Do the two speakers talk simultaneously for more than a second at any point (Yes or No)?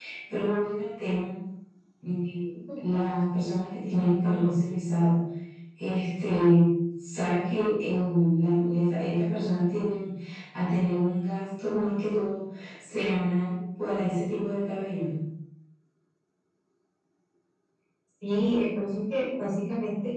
No